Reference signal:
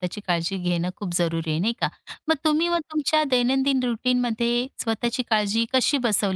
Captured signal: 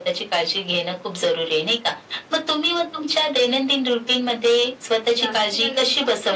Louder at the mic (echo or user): echo